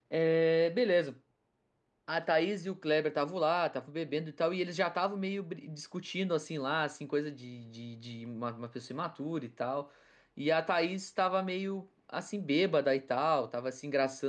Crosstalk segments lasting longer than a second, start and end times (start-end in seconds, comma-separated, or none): none